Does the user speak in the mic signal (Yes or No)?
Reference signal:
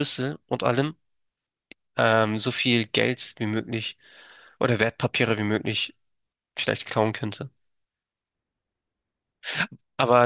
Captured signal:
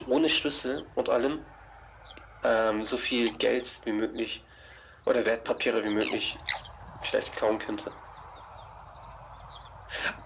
No